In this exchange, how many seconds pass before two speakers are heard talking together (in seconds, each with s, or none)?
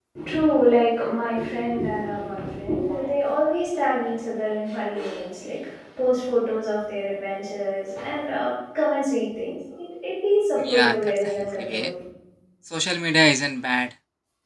10.6 s